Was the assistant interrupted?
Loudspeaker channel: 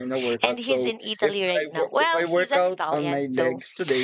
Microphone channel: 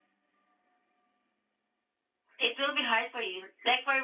Yes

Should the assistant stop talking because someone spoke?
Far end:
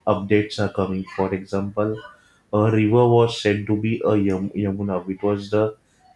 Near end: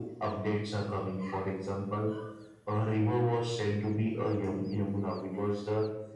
No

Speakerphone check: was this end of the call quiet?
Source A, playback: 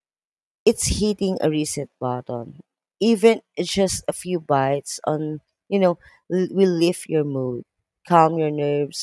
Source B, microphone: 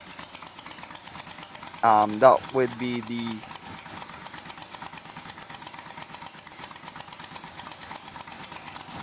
No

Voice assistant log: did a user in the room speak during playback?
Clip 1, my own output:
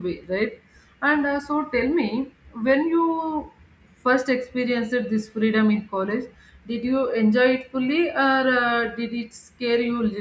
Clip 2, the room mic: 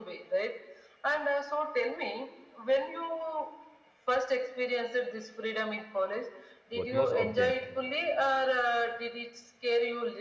Yes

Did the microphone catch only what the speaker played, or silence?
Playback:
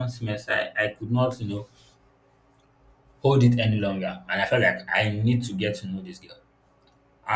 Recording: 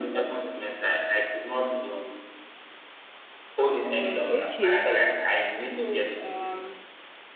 No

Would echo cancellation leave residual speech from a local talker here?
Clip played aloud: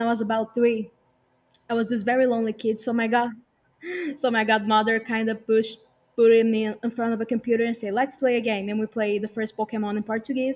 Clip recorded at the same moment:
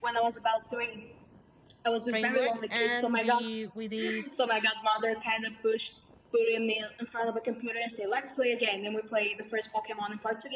Yes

